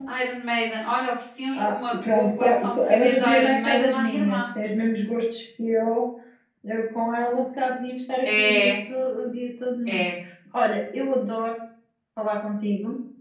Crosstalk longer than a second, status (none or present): present